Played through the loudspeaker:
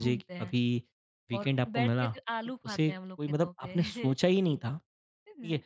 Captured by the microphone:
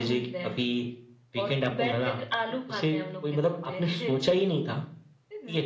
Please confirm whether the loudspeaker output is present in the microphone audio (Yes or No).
Yes